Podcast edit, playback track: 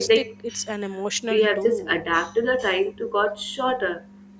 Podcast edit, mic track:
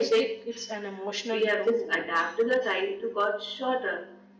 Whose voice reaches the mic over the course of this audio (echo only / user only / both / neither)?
echo only